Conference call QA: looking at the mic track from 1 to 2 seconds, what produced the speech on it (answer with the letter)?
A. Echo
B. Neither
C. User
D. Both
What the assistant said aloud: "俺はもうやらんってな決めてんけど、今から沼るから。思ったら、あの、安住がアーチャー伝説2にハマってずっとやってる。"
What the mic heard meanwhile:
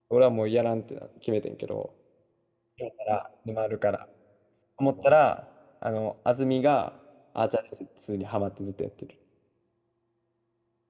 A